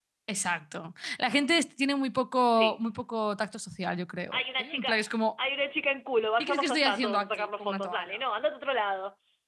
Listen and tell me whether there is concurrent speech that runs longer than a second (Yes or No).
Yes